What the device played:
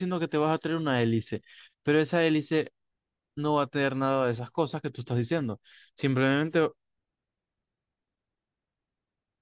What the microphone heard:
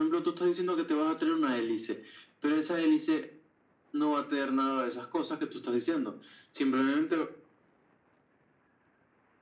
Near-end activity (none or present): none